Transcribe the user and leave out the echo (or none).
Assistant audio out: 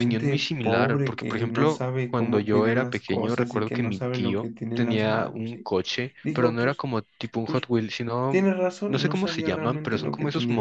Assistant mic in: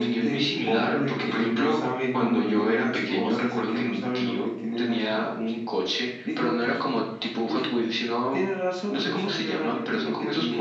none